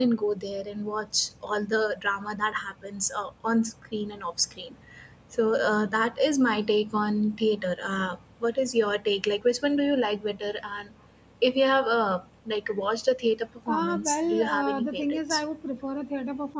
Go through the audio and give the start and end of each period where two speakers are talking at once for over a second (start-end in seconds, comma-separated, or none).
13.7-15.4